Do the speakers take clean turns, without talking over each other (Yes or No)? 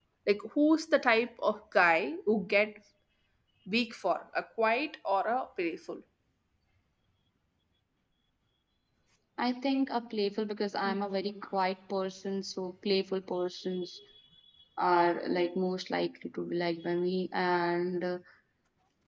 Yes